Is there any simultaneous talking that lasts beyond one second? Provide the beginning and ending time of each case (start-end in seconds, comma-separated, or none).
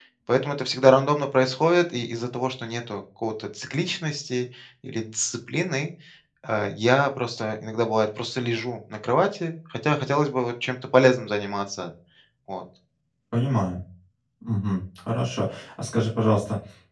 none